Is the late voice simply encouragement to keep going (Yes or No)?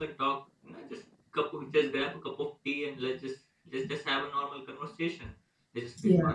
Yes